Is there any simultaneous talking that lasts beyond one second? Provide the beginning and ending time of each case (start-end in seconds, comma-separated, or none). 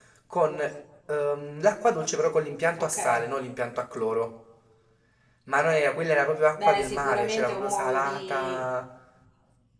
6.6-8.7